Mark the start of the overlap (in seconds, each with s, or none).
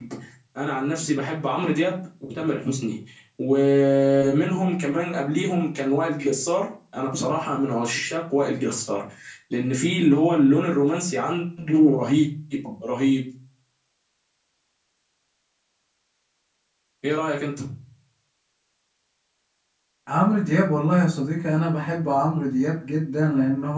none